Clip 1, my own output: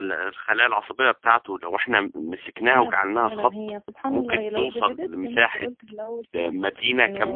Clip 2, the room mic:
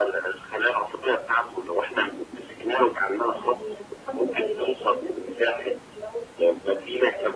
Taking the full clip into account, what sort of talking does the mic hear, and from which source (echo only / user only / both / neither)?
echo only